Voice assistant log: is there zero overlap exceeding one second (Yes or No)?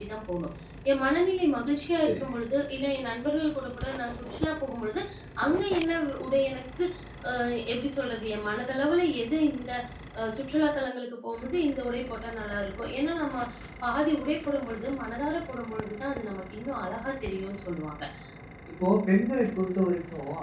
Yes